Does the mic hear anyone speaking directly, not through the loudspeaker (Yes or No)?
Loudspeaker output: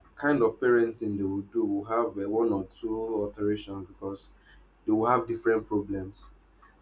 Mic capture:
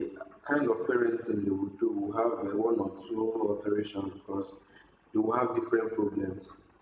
No